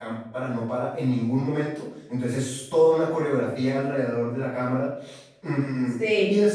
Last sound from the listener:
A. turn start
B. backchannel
B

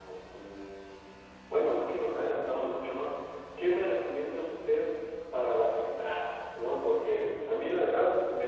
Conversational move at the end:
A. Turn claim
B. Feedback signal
B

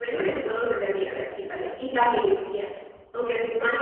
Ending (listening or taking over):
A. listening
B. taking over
A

